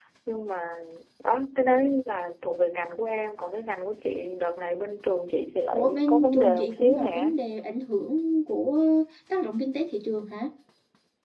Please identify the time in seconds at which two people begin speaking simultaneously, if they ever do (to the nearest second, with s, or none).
6 s